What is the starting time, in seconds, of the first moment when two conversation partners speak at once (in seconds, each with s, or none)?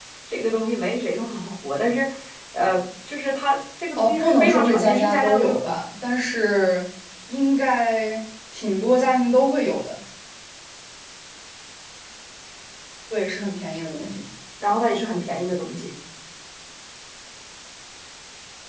4.0 s